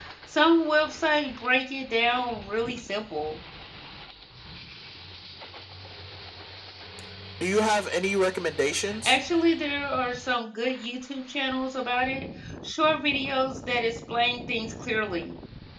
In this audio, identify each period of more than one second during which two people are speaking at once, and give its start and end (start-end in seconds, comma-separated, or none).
none